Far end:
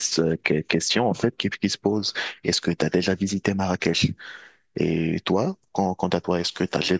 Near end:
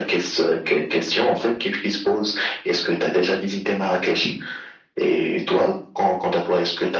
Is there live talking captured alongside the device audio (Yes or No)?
No